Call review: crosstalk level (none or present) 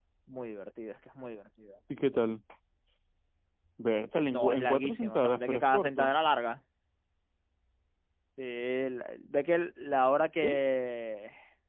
present